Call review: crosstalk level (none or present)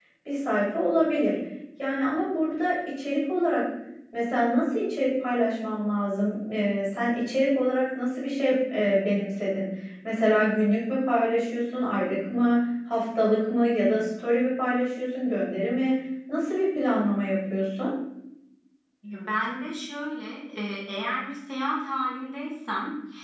none